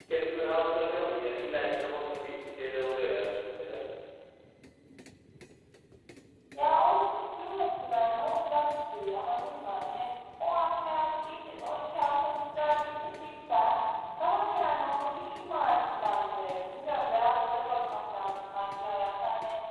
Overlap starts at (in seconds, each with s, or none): none